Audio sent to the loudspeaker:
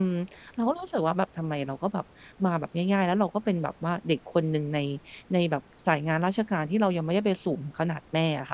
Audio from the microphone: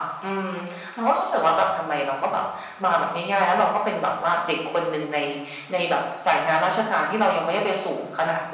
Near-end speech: none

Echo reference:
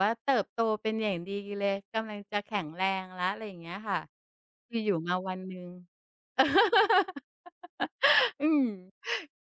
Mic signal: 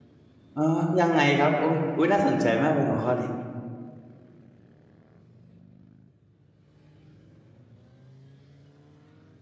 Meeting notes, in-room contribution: present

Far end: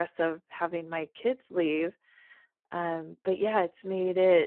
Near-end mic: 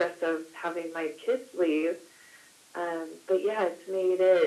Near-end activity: none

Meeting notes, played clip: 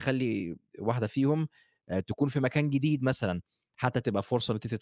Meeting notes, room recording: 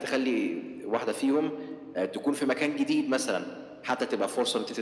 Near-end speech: none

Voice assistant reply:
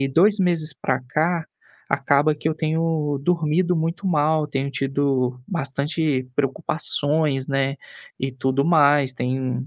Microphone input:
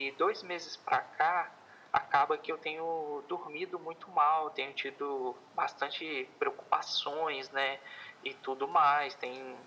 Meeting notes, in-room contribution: none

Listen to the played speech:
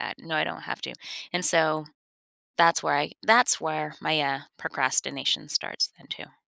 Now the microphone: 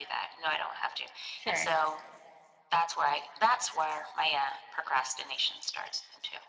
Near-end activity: present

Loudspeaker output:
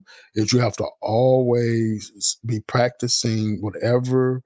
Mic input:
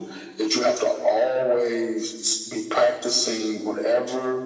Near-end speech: none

